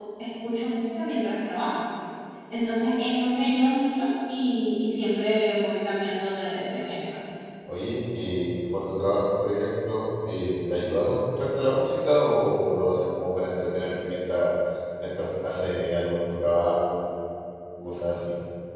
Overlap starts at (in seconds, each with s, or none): none